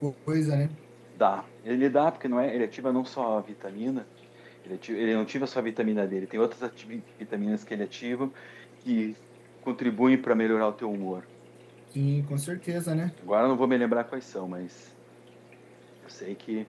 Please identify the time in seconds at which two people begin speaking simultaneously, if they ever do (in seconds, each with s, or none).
none